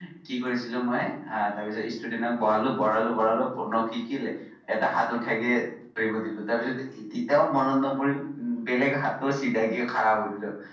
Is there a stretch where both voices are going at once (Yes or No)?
No